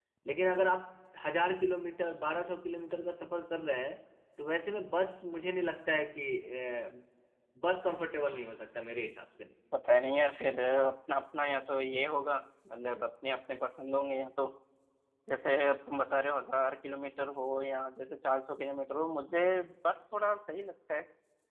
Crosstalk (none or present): none